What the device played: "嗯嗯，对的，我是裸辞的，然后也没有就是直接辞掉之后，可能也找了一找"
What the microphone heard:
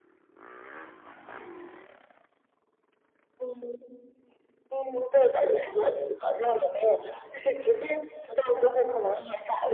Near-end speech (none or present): none